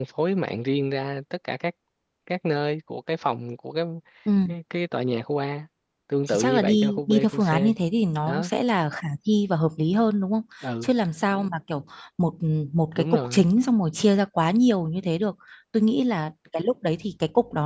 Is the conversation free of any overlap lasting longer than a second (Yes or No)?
No